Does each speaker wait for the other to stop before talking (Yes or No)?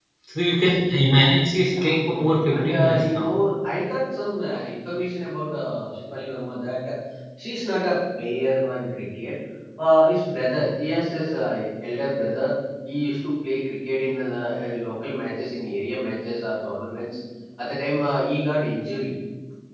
No